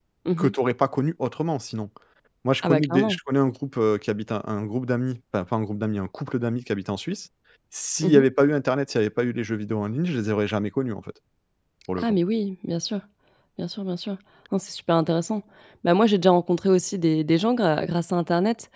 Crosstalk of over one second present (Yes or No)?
No